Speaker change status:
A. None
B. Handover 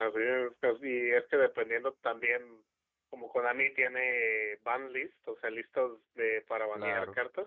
A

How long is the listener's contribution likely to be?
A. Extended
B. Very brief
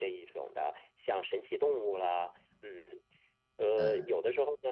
B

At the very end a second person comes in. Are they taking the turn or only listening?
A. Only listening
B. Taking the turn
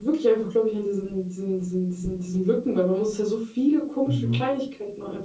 A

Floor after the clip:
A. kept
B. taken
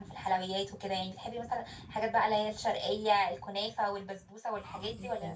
B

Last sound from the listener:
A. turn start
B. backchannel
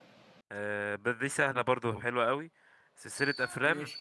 B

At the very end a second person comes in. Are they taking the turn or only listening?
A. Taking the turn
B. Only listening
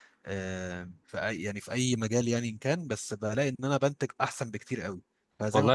A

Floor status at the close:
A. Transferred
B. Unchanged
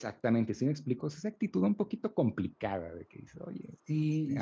A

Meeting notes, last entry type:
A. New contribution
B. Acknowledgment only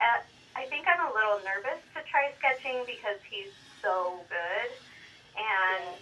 B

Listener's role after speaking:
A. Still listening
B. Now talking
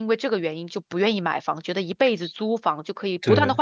A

